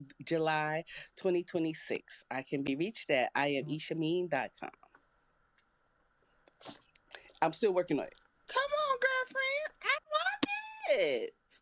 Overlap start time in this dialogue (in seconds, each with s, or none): none